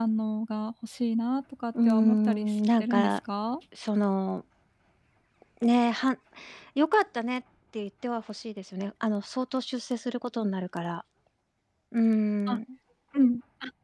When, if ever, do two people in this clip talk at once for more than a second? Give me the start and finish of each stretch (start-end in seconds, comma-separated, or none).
1.9-3.2